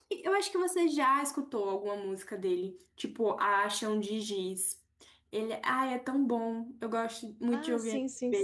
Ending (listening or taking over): taking over